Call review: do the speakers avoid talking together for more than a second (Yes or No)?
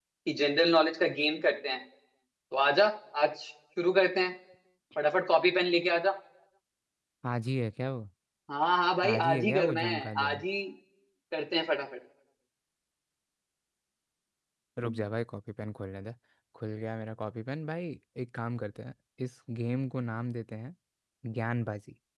No